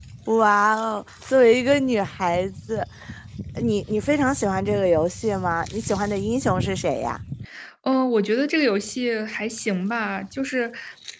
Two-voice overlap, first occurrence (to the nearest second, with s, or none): none